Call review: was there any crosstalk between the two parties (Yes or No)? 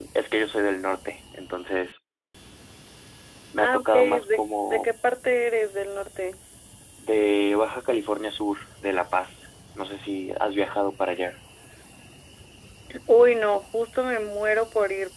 Yes